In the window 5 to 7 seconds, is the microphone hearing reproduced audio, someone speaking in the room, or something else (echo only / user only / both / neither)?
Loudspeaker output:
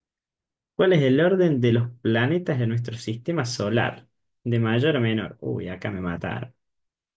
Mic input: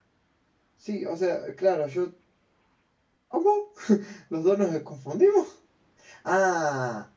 user only